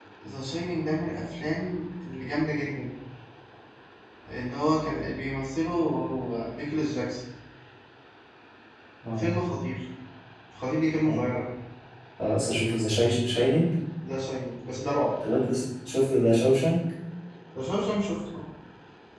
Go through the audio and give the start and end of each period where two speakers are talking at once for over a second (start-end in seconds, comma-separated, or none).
none